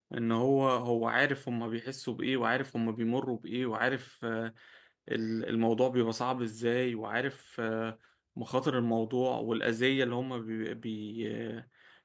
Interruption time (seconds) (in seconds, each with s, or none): none